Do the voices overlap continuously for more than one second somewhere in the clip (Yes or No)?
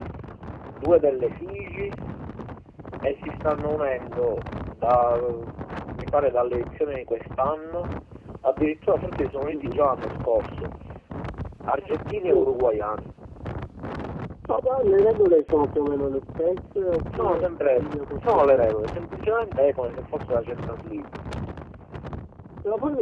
Yes